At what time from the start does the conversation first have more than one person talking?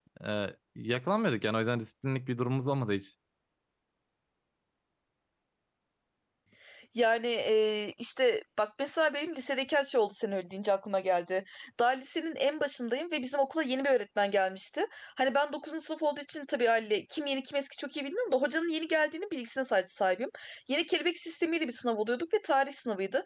none

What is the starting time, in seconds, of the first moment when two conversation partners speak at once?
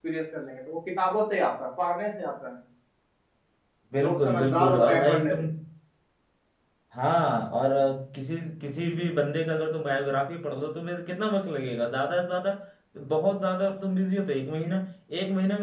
4.0 s

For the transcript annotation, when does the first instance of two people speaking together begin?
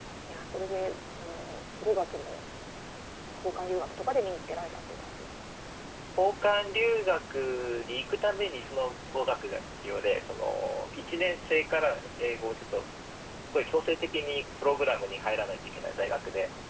none

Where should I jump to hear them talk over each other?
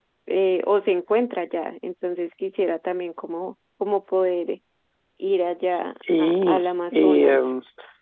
6.2 s

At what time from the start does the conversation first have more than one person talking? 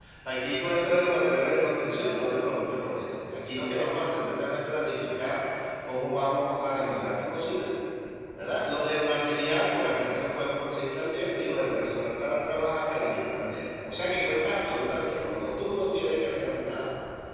none

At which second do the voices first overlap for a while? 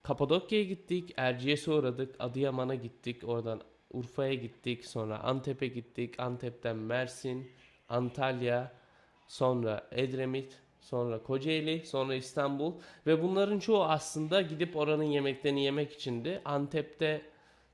none

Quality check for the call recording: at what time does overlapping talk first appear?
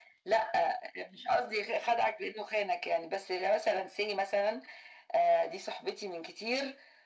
none

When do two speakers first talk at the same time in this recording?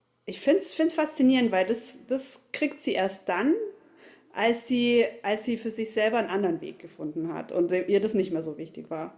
none

